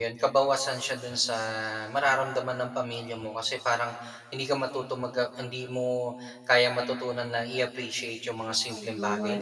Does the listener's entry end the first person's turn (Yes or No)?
No